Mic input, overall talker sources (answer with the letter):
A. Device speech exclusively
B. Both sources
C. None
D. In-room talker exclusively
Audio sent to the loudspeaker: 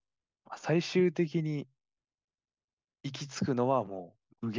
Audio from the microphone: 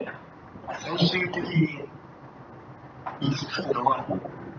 A